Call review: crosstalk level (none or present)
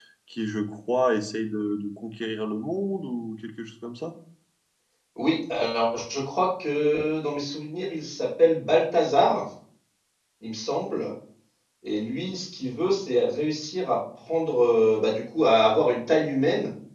none